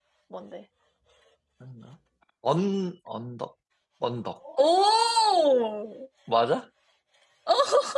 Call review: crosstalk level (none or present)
none